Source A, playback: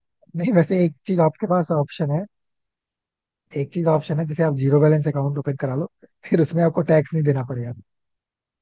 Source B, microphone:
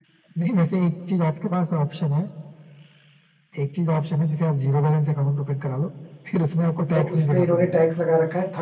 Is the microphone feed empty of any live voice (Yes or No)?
No